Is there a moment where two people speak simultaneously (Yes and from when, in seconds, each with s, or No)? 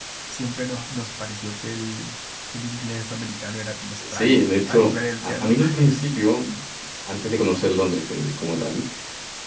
Yes, from 4.0 s